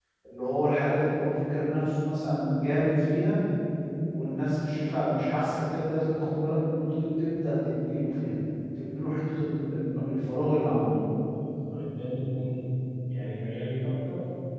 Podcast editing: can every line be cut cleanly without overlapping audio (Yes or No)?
Yes